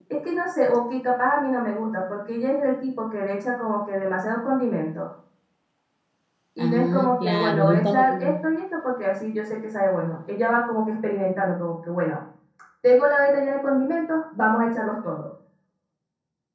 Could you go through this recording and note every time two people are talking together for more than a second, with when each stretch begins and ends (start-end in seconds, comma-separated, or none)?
6.6-8.3